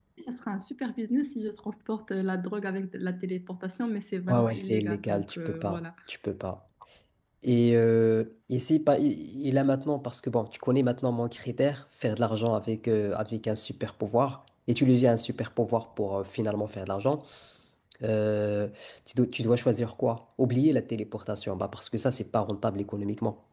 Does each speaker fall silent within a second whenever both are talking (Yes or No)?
No